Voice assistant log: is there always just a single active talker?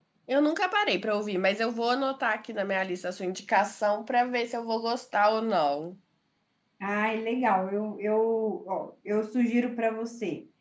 Yes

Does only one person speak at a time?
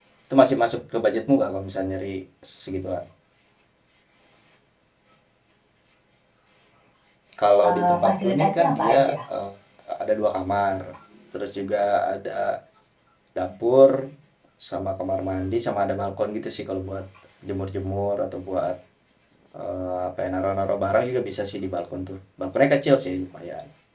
No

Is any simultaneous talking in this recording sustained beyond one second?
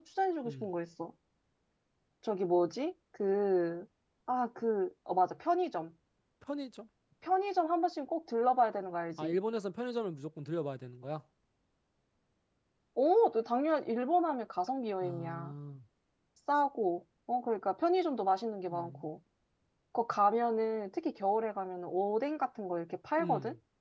No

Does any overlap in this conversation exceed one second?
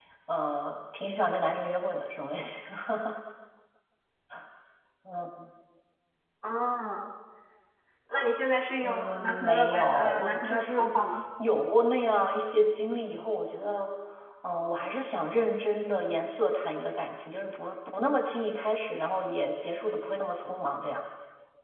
Yes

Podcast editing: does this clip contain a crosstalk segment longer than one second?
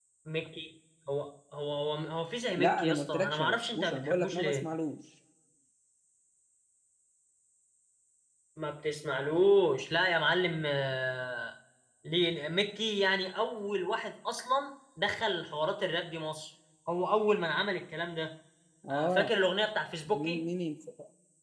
Yes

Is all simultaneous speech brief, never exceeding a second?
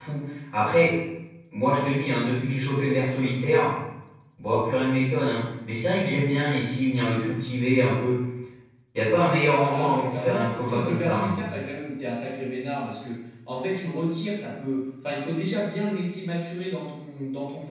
No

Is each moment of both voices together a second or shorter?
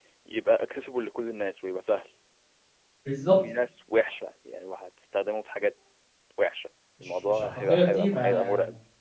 No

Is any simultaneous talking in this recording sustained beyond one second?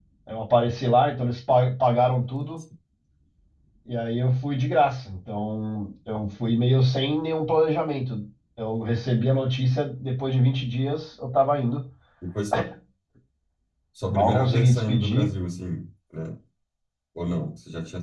Yes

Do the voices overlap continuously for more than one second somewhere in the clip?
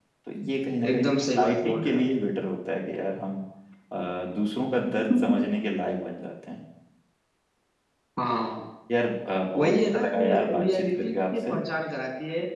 Yes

